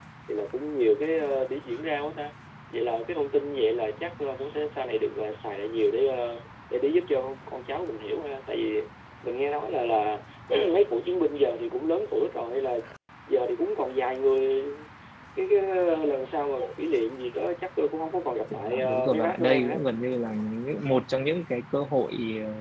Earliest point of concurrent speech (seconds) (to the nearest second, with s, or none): 19 s